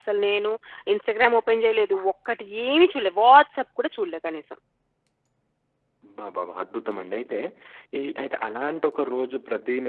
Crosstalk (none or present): none